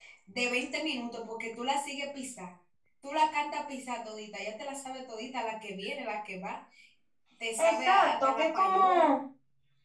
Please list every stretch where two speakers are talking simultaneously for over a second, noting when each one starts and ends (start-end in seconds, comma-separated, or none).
7.6-9.1